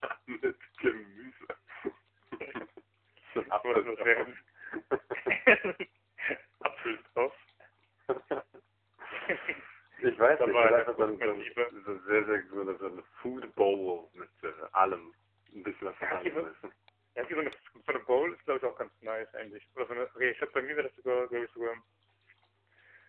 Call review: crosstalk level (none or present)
present